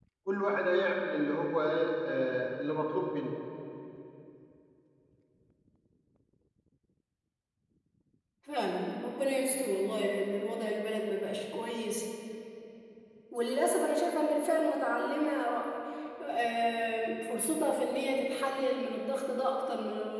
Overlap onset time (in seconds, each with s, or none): none